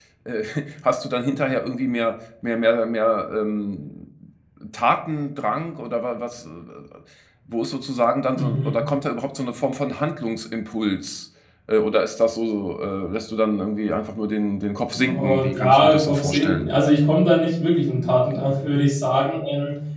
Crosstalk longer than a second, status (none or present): present